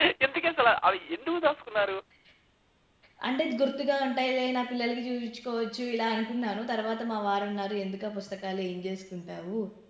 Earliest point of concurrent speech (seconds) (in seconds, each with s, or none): none